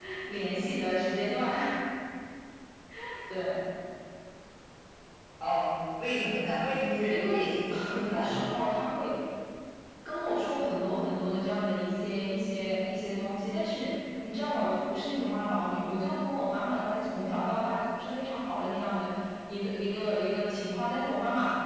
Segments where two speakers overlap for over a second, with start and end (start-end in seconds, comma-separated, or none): 7.1-8.4